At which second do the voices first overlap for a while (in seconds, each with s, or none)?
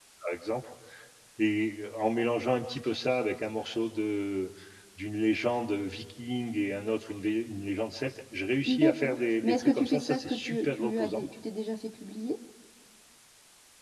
8.7 s